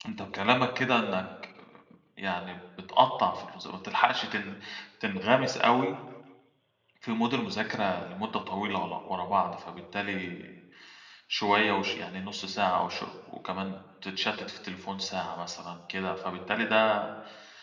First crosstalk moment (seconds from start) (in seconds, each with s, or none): none